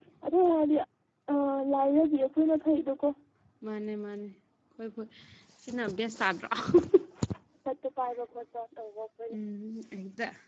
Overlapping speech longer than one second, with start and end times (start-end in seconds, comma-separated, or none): none